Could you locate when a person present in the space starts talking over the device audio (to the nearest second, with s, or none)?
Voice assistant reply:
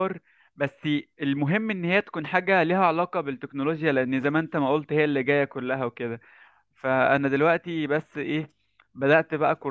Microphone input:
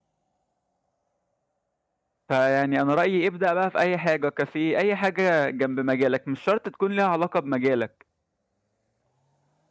2 s